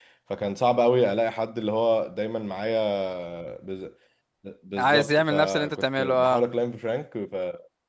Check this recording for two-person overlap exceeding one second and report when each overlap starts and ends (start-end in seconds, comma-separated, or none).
4.8-6.4